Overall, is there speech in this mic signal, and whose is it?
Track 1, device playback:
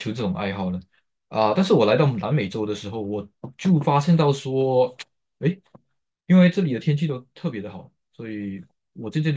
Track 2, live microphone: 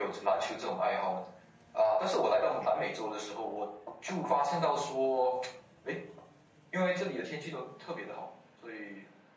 echo only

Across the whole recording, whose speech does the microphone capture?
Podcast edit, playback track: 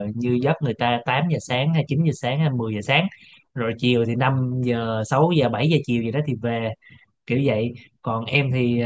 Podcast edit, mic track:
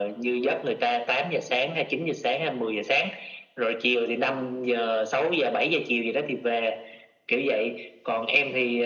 echo only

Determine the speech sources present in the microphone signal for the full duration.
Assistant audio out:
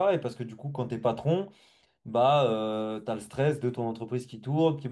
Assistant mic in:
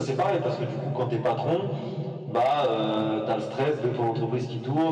echo only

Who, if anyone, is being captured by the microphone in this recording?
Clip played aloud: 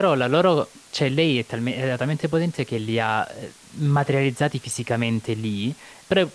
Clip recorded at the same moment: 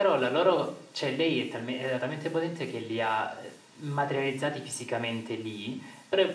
echo only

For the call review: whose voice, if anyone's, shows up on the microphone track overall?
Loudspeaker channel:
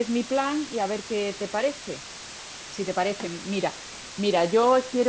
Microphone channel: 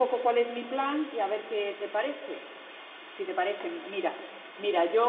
echo only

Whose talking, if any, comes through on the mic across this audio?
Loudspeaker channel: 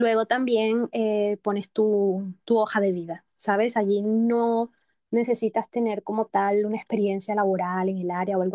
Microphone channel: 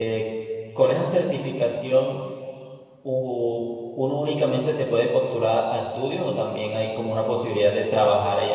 user only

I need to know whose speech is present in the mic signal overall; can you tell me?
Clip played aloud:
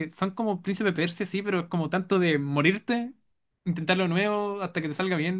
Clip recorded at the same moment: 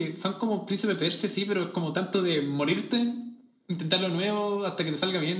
echo only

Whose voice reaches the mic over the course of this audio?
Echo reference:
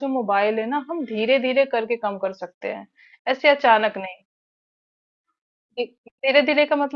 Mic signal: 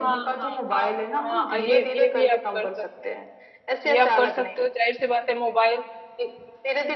both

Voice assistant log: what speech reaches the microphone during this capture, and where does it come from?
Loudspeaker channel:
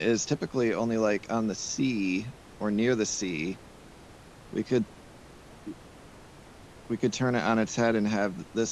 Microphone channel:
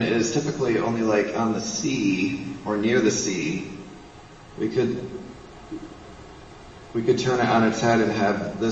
echo only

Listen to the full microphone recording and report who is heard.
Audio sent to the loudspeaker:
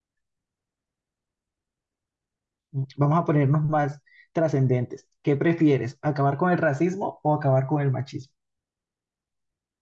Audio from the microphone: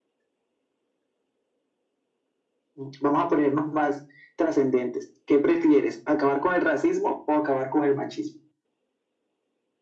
echo only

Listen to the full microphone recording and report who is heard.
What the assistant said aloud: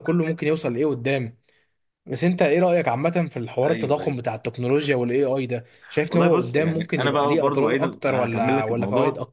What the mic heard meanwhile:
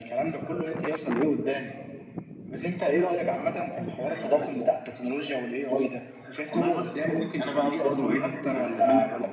echo only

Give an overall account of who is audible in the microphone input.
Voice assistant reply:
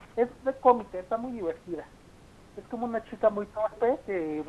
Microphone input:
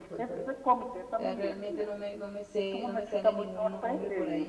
both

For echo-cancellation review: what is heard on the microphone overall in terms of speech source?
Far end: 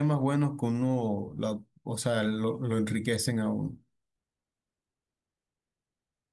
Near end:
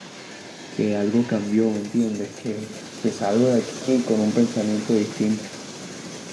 user only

